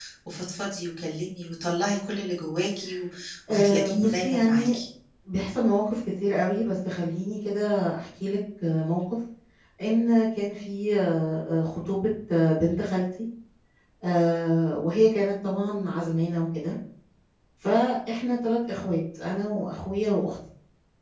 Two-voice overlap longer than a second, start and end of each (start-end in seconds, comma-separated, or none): 3.5-4.7